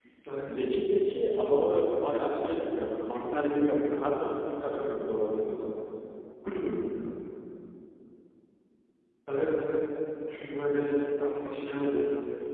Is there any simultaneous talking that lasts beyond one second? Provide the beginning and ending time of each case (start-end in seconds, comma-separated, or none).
none